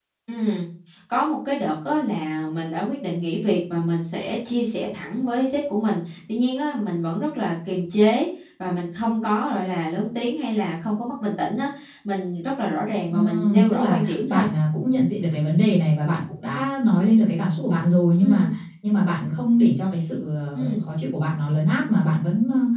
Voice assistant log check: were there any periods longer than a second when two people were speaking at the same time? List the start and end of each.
13.1-14.4

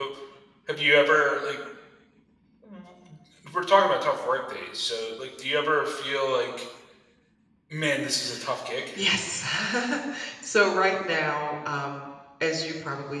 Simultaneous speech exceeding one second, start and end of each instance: none

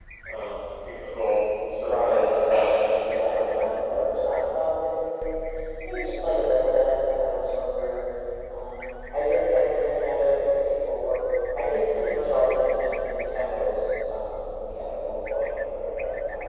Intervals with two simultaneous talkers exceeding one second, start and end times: 1.7-3.6

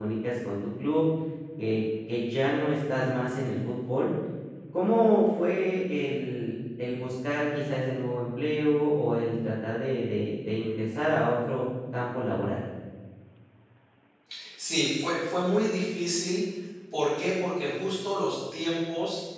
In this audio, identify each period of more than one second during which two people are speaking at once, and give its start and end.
none

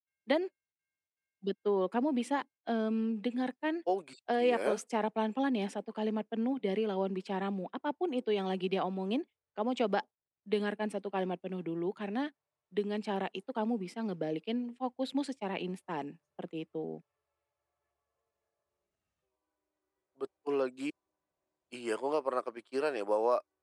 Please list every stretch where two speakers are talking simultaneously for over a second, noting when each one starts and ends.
none

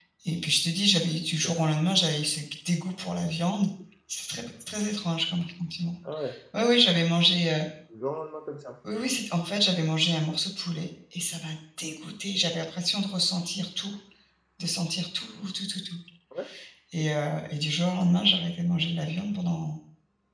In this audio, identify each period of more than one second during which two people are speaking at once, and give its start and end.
none

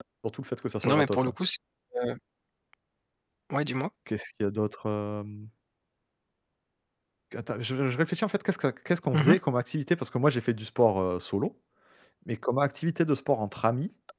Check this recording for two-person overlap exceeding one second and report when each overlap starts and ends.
none

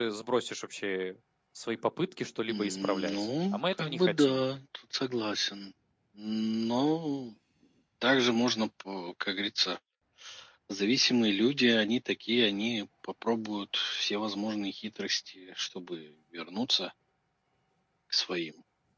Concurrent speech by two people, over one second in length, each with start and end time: 2.5-4.4

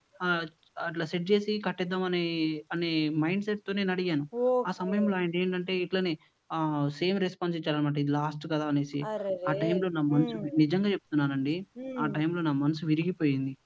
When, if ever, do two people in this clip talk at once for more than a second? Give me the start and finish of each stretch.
none

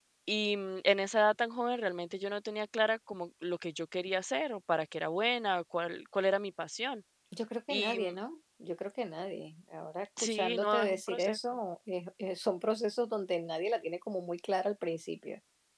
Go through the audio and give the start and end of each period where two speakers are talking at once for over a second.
10.2-11.4

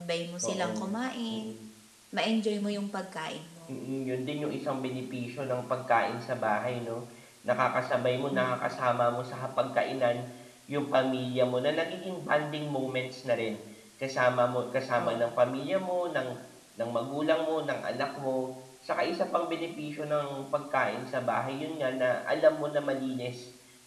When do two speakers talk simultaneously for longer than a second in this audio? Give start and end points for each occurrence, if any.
none

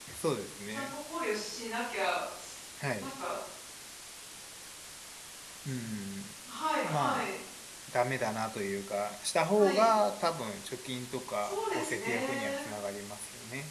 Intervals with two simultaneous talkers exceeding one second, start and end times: 11.4-12.6

